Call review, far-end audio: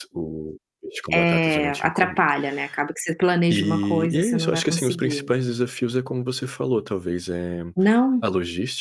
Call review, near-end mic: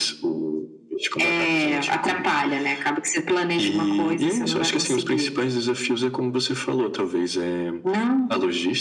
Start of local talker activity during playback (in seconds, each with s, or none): none